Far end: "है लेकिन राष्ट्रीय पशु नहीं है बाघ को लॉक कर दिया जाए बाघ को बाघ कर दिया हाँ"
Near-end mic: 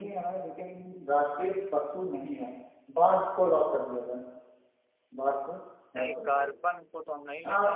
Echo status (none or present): present